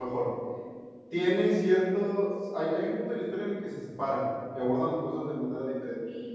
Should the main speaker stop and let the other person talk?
Yes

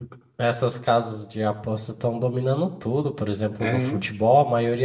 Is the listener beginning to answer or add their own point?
No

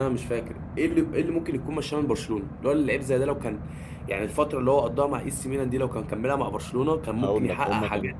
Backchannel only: No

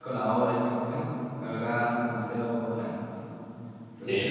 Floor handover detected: Yes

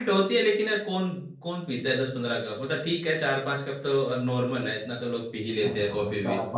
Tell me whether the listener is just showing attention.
No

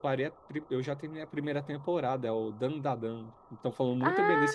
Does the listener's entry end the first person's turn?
Yes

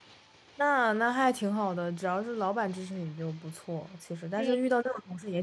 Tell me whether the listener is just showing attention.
Yes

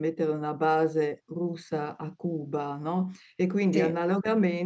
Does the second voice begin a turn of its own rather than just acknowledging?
No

